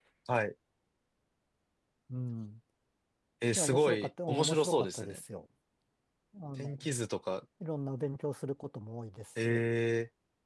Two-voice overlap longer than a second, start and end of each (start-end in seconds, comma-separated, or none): 3.5-5.2